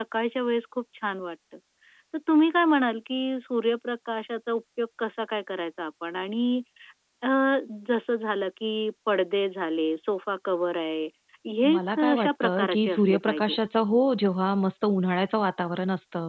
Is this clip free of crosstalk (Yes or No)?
No